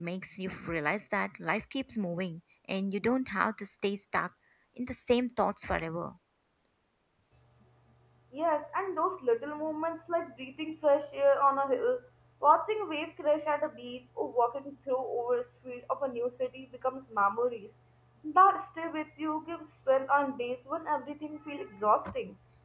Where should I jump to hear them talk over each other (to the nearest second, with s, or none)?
none